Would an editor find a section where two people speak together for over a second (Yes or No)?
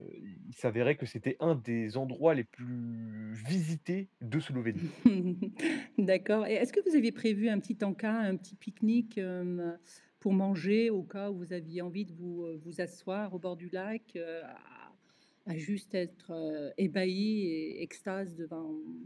No